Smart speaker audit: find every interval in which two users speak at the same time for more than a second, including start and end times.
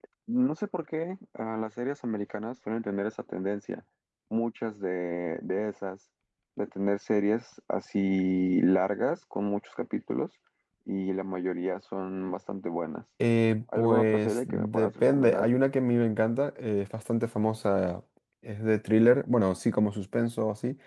13.8-15.5

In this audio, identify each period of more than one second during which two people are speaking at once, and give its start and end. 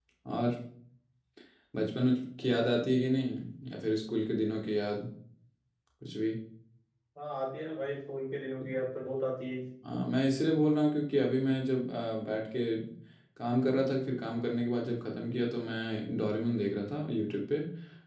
none

